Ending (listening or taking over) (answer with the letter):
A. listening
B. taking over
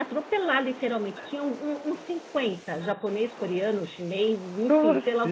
A